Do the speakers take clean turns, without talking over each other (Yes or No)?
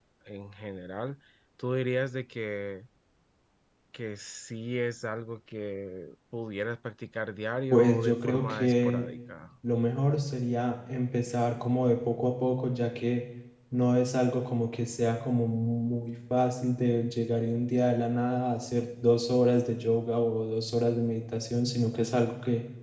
No